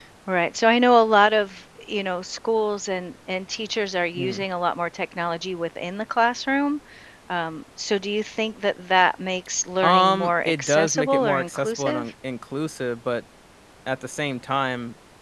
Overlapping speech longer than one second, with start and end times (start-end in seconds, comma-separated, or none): 9.8-12.1